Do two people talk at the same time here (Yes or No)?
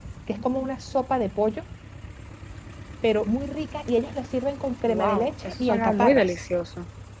Yes